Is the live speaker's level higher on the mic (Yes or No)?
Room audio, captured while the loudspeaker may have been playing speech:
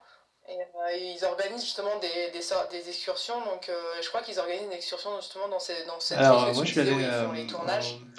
Yes